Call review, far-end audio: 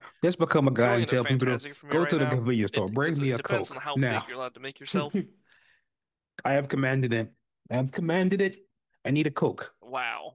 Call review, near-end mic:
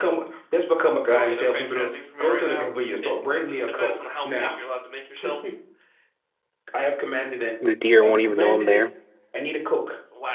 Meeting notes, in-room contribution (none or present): present